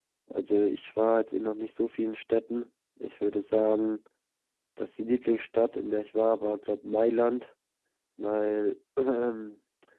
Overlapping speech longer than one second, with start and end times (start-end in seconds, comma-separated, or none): none